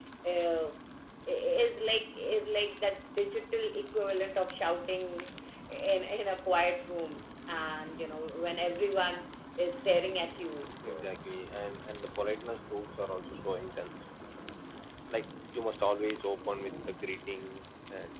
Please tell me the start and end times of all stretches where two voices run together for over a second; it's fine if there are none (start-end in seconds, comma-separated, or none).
none